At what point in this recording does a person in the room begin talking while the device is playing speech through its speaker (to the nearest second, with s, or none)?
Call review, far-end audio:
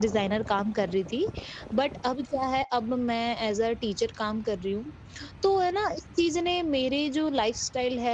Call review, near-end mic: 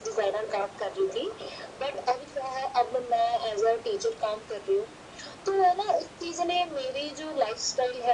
none